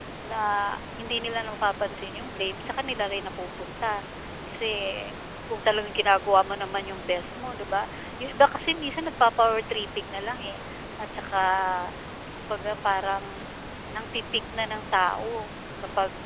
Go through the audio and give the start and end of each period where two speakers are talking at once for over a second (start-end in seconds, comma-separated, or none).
none